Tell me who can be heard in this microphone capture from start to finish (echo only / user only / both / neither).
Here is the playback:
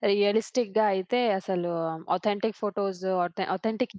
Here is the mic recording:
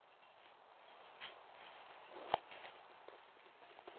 neither